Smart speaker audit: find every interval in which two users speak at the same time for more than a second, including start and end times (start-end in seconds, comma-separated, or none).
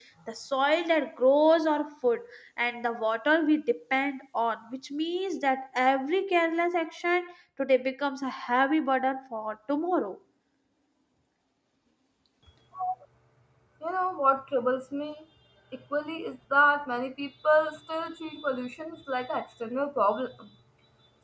none